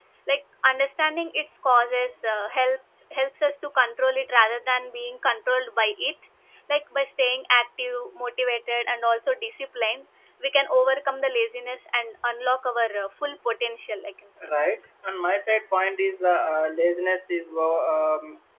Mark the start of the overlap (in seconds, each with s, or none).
none